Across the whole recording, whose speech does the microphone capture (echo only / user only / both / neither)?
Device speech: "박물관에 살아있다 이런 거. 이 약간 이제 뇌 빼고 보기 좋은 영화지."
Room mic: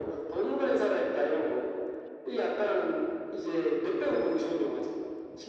echo only